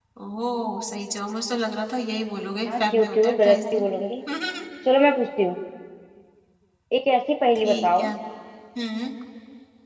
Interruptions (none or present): present